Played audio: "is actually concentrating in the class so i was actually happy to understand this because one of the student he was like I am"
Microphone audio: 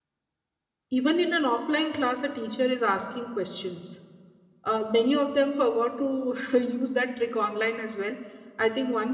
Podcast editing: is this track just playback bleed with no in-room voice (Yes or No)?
No